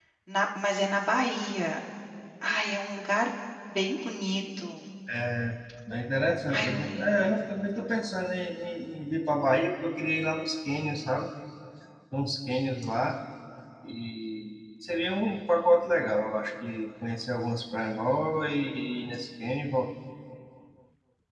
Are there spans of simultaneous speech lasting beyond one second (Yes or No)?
Yes